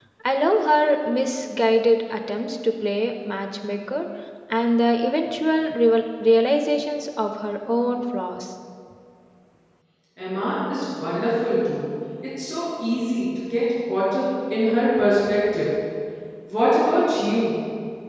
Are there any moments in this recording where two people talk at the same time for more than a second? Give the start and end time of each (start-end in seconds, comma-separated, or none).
none